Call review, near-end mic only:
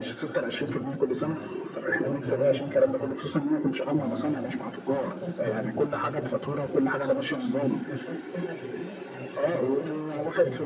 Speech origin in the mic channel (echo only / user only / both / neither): both